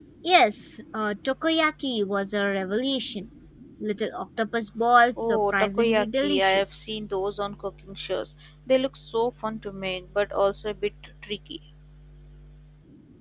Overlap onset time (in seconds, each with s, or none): 5.2 s